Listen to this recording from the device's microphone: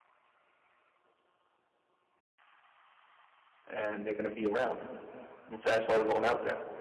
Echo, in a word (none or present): none